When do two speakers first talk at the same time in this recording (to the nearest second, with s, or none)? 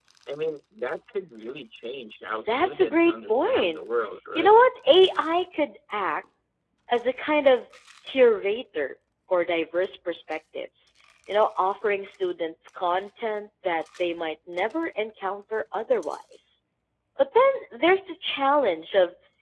2 s